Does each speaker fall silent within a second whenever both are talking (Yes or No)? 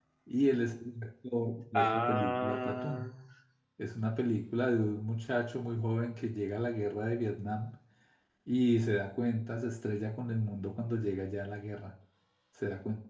No